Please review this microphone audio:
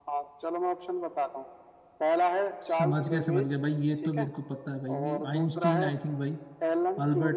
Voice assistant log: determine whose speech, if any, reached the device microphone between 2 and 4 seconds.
both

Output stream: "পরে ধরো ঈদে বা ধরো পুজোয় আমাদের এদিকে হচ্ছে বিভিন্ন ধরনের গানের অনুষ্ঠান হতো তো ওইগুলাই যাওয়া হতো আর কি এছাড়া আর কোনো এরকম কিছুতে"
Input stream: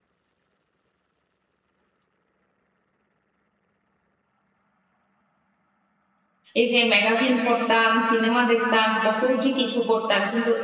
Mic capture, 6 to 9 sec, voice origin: user only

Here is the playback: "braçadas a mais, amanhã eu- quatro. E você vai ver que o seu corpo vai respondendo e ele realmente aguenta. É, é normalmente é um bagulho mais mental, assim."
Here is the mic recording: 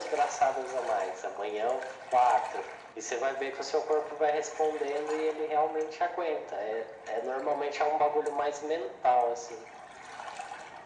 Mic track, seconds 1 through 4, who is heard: echo only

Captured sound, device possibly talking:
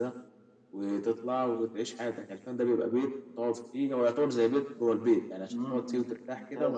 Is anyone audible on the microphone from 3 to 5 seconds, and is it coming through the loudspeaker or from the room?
echo only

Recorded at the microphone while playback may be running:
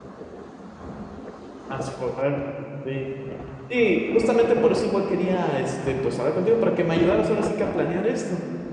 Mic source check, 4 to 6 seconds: user only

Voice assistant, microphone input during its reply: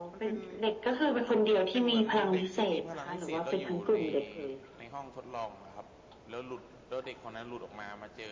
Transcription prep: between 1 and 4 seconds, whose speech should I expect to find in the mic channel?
both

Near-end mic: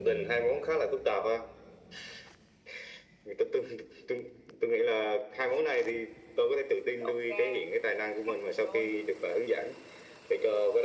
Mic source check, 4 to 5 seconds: echo only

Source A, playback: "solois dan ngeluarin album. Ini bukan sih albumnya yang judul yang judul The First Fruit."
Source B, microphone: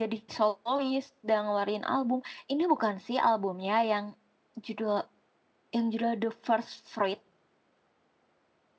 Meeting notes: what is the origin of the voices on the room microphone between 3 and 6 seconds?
echo only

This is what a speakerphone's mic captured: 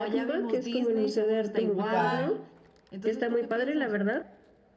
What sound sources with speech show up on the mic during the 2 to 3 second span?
both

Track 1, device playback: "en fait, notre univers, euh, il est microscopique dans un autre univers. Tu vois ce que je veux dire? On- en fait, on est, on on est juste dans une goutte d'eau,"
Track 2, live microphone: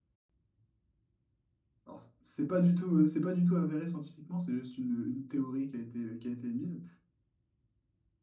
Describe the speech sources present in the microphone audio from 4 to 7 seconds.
user only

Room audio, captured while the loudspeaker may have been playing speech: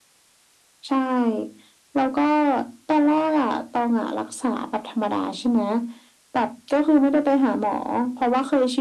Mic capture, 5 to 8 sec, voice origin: echo only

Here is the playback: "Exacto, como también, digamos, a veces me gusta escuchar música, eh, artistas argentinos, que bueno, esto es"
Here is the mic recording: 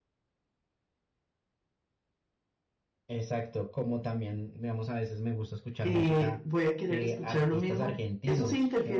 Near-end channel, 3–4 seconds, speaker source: echo only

